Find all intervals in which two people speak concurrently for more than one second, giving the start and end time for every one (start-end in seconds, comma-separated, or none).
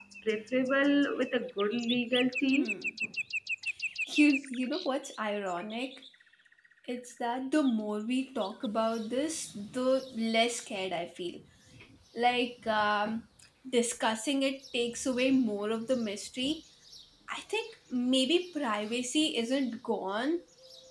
none